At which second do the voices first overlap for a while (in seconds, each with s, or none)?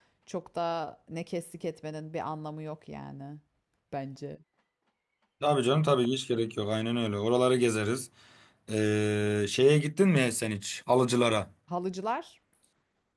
none